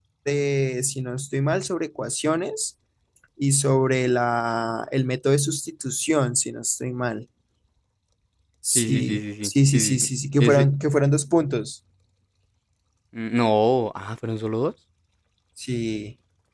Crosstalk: present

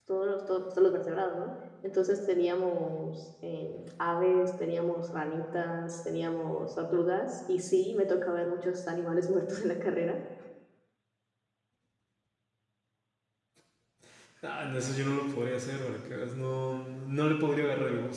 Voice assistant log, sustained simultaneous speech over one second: none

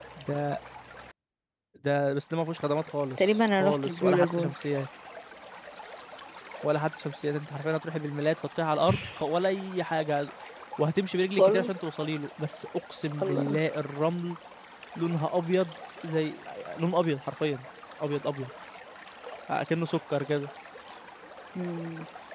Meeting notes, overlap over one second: present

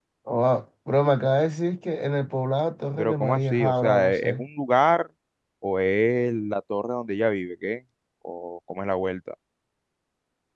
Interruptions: present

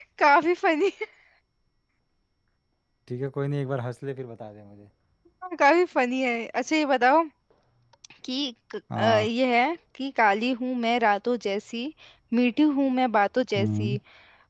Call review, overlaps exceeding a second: none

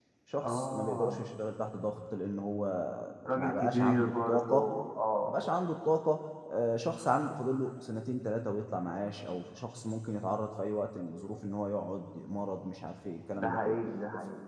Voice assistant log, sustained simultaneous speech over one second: present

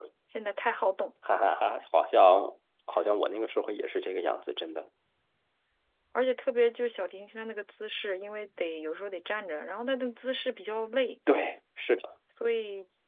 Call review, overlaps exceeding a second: none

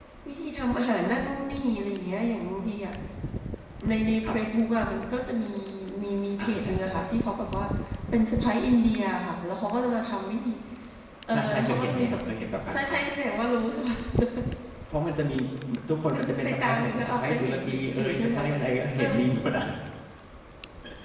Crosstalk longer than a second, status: present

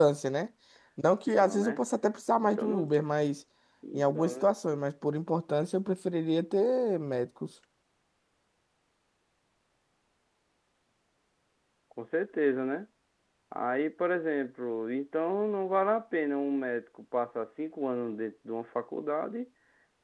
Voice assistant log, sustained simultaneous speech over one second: none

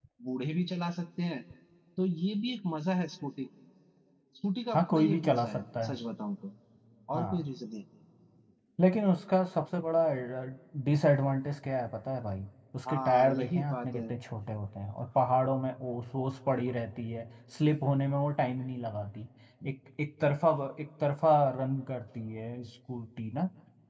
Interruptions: present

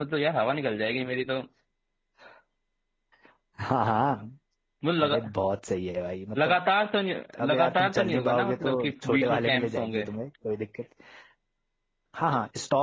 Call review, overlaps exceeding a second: present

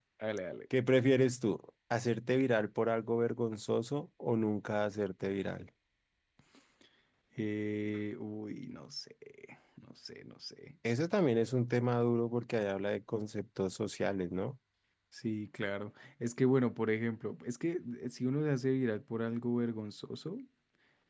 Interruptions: none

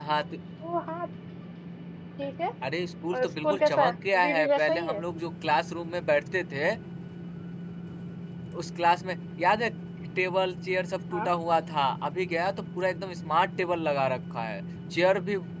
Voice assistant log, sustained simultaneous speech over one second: present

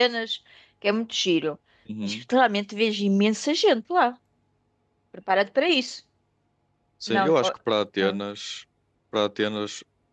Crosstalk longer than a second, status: none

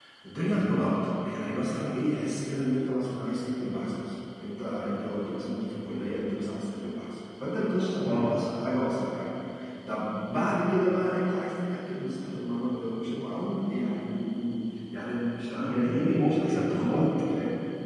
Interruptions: present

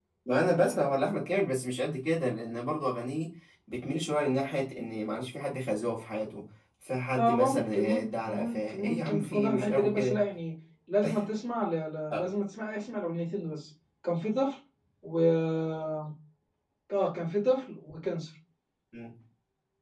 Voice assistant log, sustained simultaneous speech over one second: present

